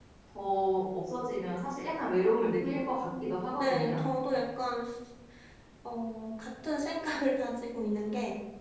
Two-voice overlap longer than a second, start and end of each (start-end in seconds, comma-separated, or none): 2.6-4.0